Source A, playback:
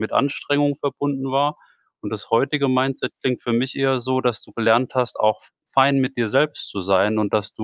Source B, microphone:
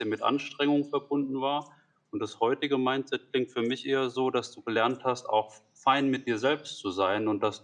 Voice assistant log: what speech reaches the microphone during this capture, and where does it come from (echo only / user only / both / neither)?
echo only